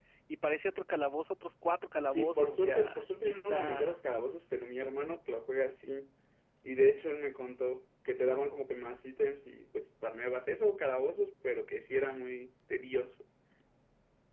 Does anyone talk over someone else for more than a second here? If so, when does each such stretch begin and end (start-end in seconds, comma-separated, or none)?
2.1-4.0